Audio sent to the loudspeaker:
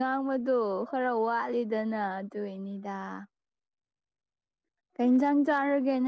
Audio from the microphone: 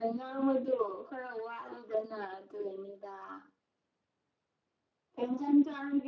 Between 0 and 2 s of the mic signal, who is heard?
echo only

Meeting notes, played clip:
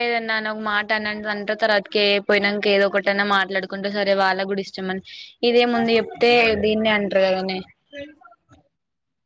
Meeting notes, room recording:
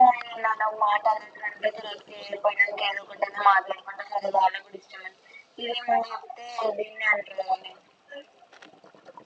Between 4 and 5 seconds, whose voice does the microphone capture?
echo only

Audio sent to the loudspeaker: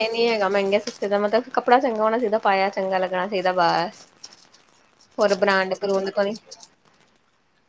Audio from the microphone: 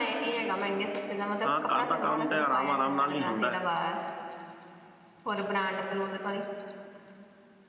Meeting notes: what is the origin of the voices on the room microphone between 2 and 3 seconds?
both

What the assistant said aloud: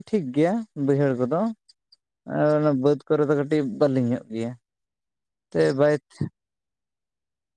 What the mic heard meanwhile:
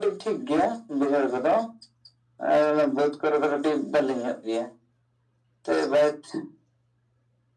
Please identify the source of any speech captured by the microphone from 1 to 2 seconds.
echo only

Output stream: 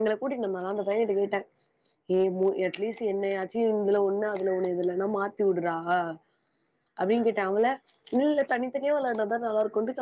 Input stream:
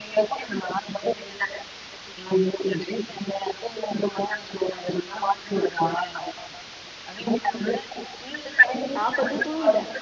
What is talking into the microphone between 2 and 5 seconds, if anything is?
echo only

